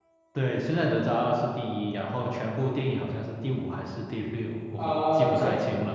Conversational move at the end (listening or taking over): taking over